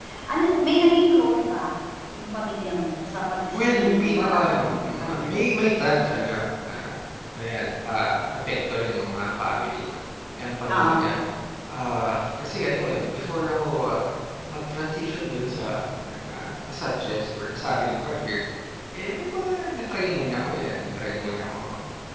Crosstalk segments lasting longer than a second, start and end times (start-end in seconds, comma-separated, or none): 3.5-5.4